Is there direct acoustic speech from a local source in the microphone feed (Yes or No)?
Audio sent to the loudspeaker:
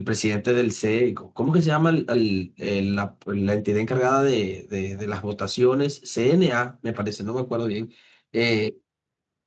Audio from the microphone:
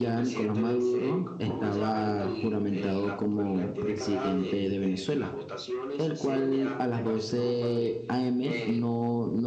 Yes